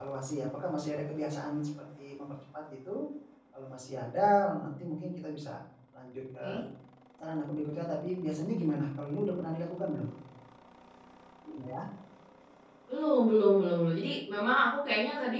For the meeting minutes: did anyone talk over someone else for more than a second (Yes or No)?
No